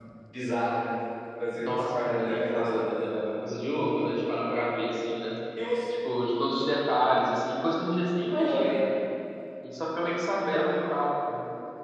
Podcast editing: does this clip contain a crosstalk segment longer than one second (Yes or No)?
Yes